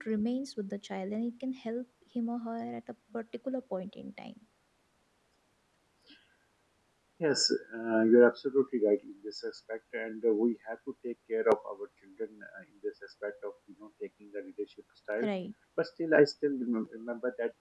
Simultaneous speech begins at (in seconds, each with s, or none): none